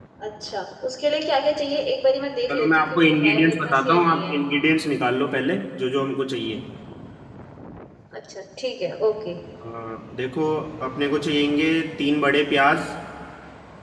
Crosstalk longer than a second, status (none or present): present